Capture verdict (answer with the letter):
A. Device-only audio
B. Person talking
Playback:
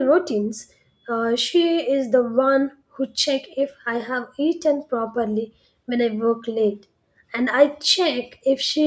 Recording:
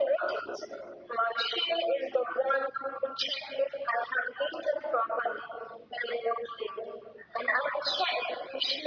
A